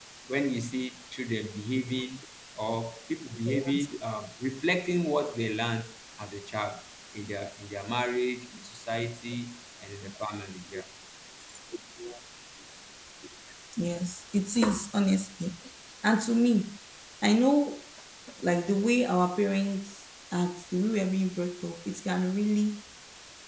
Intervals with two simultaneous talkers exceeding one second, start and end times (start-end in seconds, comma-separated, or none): none